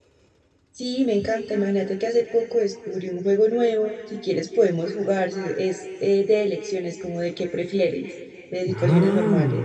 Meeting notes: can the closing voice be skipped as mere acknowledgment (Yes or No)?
No